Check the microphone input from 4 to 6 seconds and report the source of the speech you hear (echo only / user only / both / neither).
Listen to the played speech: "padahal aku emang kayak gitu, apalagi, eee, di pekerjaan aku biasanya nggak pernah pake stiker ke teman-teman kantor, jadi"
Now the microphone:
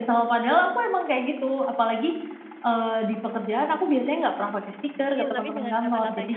both